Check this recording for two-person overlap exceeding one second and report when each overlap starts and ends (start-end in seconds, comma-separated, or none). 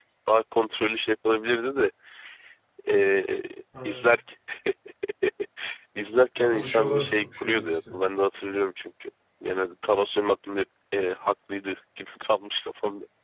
6.4-7.8